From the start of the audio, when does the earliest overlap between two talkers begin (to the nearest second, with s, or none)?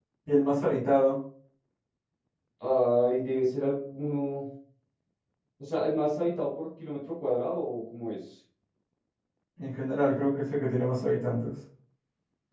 none